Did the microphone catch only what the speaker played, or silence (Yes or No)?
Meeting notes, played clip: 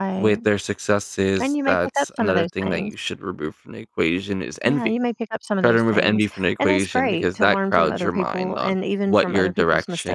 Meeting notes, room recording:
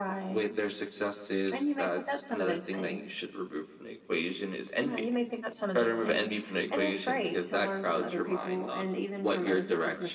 Yes